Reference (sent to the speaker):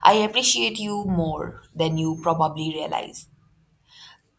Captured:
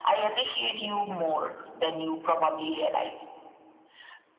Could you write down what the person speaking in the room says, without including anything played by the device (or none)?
none